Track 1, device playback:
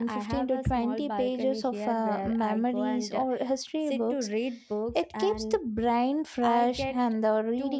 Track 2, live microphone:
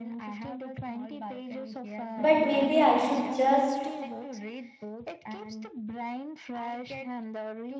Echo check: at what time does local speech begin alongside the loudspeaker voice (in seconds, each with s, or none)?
2.2 s